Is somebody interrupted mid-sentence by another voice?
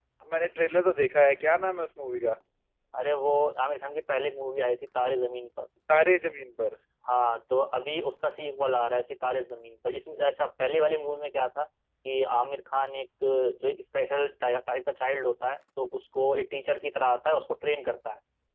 No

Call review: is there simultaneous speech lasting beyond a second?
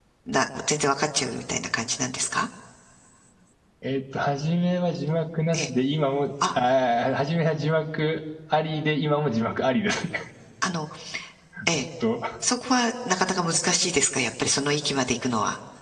No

